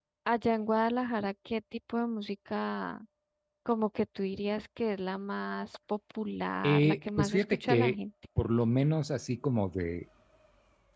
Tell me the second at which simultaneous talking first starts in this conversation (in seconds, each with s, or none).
6.6 s